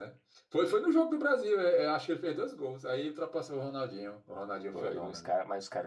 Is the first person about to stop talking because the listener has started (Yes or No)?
Yes